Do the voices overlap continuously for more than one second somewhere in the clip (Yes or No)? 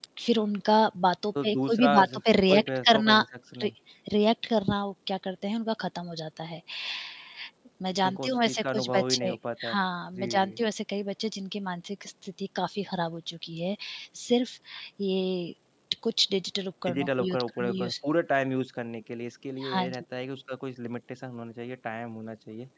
Yes